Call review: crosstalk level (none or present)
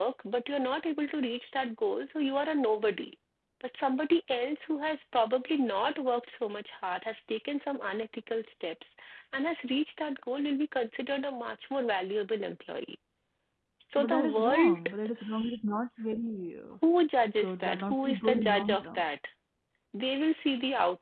present